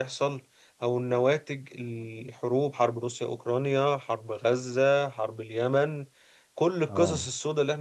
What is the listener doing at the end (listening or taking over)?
listening